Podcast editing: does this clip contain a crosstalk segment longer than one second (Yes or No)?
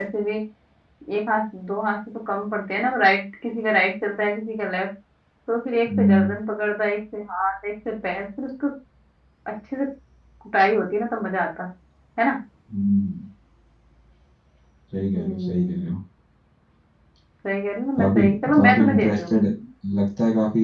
Yes